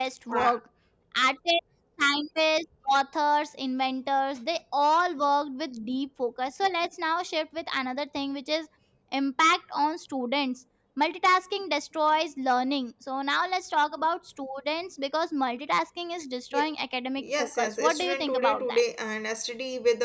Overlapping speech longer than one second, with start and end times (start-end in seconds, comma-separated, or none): 17.2-18.8